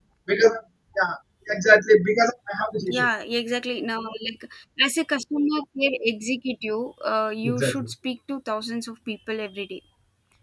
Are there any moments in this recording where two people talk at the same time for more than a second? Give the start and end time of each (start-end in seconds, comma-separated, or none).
none